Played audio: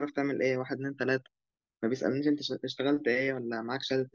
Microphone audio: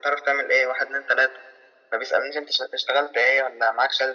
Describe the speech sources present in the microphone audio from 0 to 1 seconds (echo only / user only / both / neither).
echo only